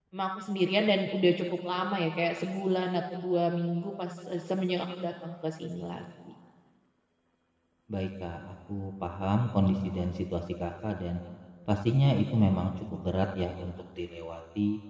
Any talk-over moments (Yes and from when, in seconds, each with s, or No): No